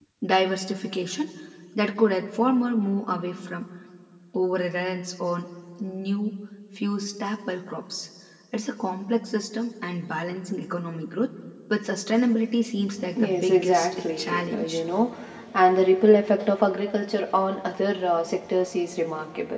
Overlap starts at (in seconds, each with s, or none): 13.2 s